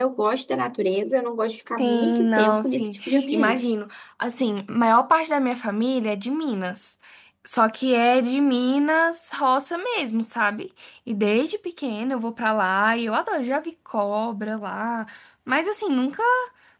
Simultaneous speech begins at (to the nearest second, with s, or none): 2 s